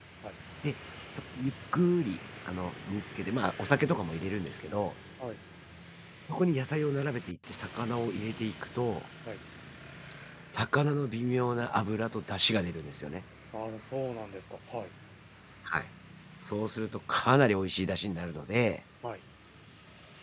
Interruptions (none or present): none